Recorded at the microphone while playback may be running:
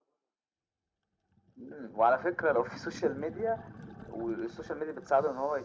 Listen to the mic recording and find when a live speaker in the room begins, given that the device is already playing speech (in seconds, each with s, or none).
none